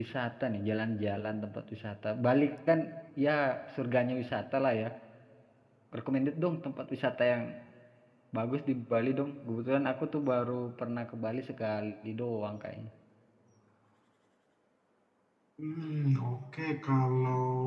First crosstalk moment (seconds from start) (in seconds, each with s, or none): none